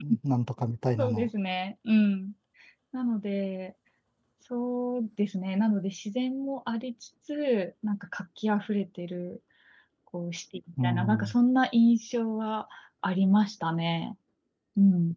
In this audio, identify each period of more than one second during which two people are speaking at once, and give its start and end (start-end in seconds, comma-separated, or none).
none